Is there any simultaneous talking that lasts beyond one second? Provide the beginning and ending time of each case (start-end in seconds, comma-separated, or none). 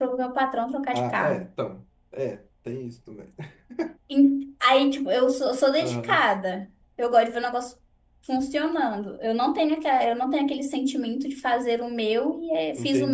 none